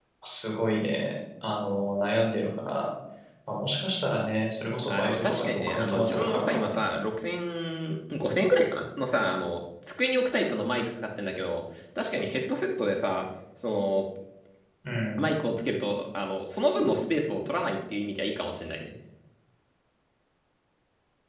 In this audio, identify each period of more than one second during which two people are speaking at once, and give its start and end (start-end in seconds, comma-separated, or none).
4.8-6.8